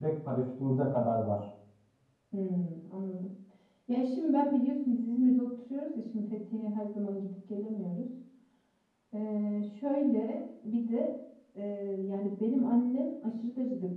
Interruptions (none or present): none